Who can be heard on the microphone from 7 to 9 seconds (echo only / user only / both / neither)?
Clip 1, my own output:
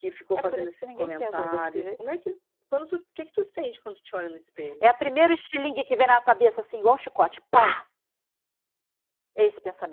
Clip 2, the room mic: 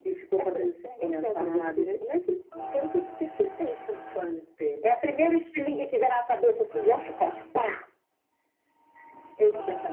echo only